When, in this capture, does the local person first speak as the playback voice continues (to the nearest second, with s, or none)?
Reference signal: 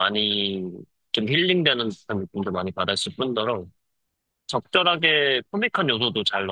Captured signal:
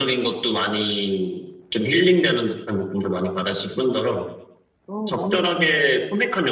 5 s